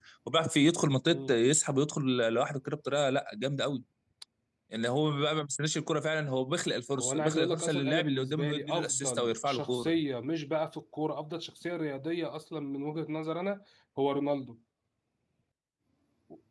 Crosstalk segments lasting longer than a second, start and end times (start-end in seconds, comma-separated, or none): 7.0-10.0